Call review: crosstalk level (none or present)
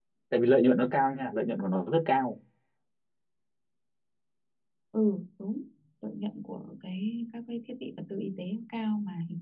none